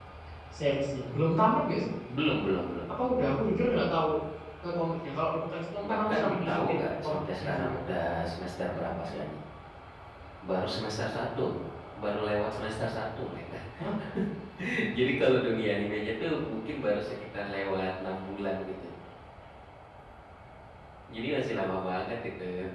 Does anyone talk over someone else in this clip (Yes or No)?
Yes